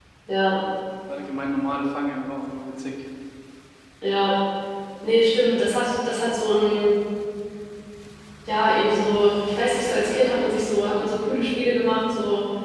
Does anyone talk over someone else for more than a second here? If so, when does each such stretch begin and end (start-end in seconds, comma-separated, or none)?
none